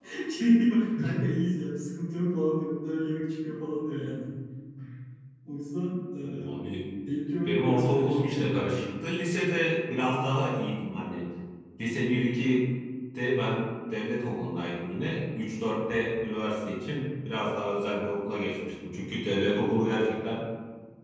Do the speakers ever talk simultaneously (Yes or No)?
Yes